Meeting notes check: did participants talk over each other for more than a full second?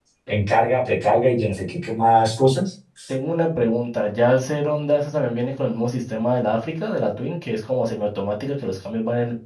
No

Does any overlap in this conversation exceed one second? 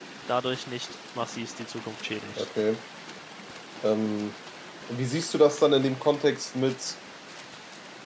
No

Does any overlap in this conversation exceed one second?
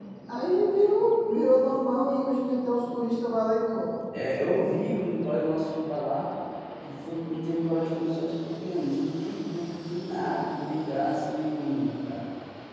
No

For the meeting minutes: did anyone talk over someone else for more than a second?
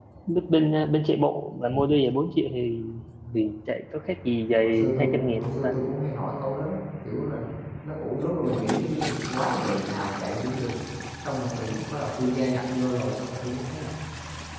Yes, from 4.5 s

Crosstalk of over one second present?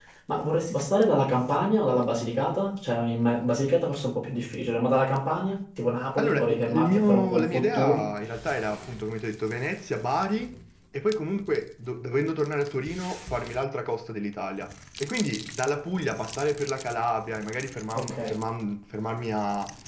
Yes, from 6.2 s

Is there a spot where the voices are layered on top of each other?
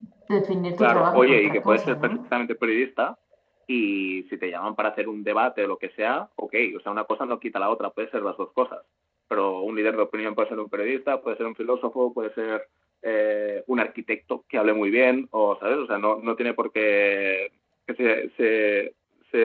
Yes, from 0.8 s

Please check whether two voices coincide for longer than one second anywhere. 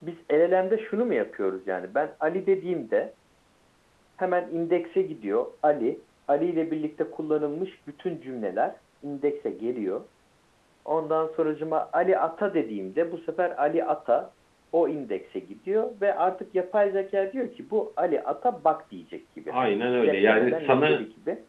Yes, from 19.5 s

